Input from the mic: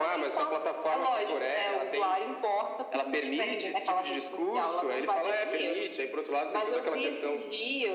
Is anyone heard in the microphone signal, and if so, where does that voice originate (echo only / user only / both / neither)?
echo only